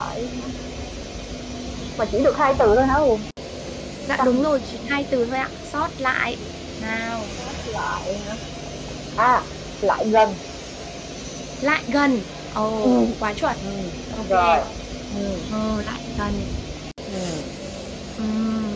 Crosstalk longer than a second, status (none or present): none